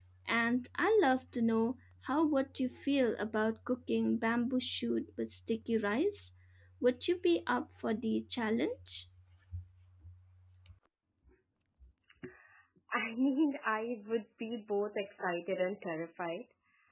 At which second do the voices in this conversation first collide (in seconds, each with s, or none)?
none